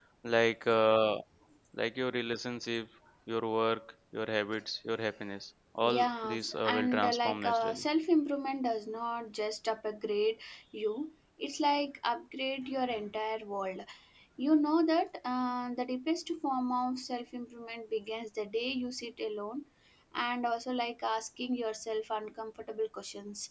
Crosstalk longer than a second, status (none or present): present